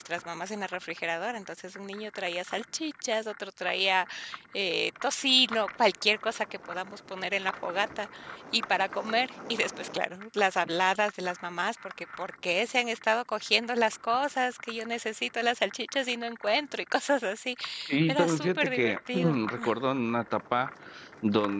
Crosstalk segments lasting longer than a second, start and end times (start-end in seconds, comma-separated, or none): 18.1-19.4